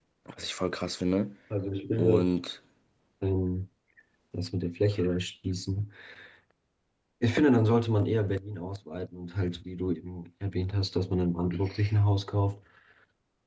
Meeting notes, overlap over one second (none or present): none